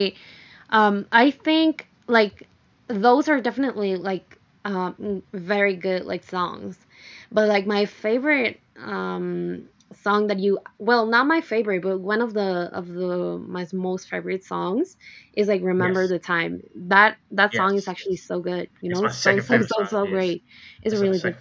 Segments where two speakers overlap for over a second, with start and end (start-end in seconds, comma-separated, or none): 18.9-20.3